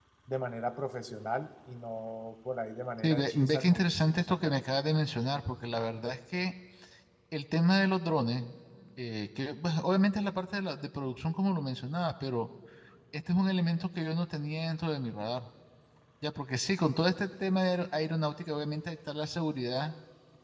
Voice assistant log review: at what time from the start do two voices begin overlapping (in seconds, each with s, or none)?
3.0 s